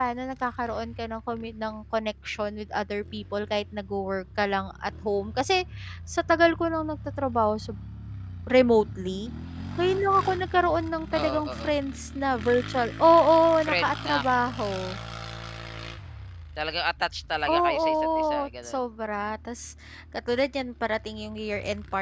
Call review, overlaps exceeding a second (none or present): present